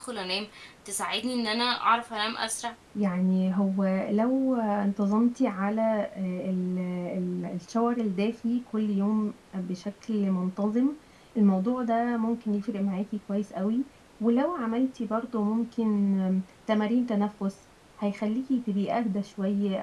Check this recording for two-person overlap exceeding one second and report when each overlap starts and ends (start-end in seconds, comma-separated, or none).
none